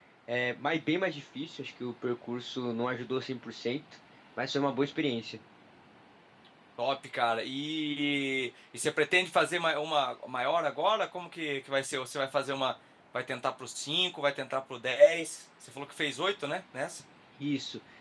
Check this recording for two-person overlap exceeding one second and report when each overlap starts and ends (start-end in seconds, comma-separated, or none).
none